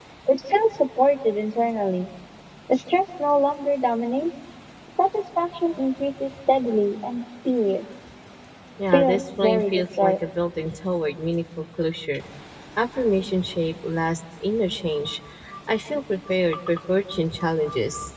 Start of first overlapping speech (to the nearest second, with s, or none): 9 s